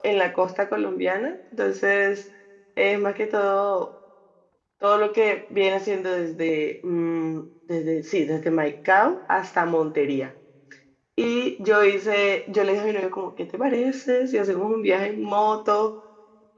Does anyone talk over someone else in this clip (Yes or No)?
No